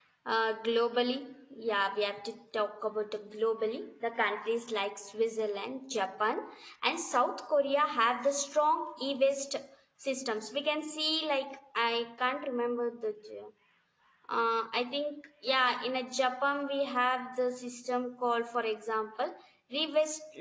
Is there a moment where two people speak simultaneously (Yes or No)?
No